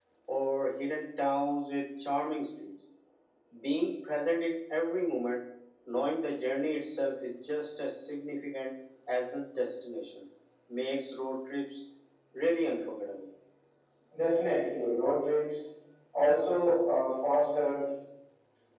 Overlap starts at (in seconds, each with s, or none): none